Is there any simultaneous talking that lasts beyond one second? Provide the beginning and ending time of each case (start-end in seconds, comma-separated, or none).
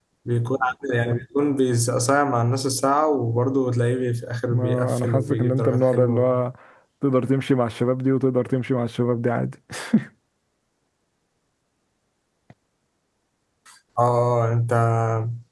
4.5-6.3